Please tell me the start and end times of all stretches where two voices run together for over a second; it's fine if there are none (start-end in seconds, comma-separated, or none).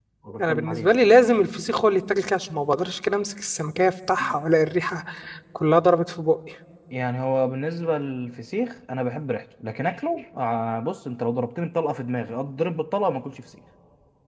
none